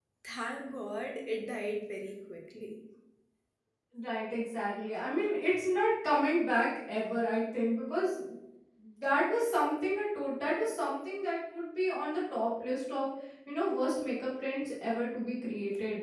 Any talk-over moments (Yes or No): No